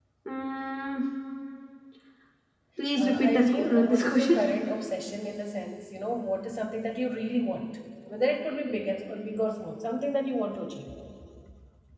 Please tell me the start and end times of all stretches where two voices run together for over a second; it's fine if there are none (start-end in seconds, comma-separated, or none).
3.0-4.4